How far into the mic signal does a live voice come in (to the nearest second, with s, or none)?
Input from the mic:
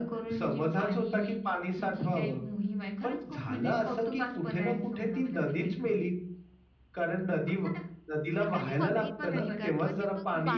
8 s